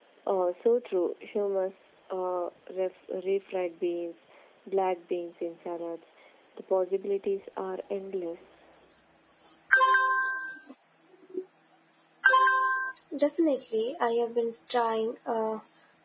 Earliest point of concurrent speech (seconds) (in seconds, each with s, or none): none